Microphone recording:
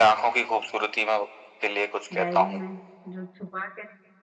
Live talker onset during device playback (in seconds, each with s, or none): 2.2 s